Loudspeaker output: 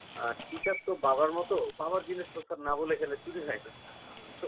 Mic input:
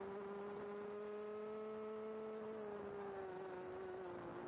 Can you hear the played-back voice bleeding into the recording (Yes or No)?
No